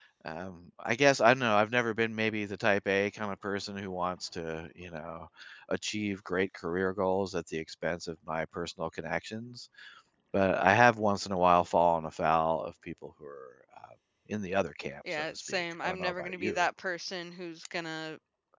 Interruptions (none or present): present